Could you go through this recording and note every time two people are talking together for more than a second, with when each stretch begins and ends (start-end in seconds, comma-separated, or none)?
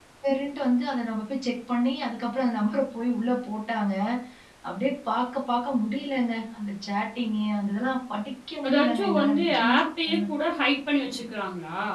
8.7-10.2